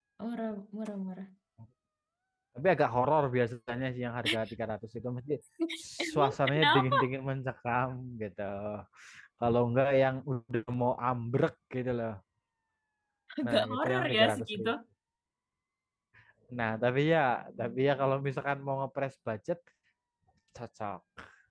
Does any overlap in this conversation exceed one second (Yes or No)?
Yes